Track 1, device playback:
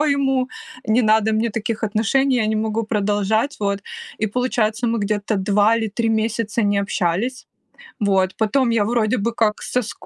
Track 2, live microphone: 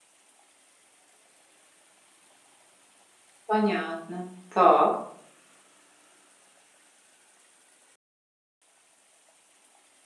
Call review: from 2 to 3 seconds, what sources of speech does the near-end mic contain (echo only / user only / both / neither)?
neither